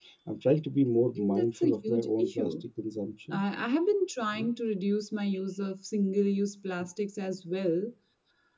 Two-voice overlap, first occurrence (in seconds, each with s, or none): 1.2 s